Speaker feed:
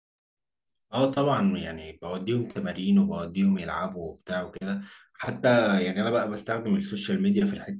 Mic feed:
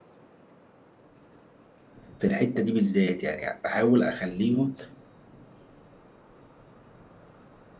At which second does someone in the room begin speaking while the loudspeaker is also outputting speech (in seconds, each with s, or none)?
2.2 s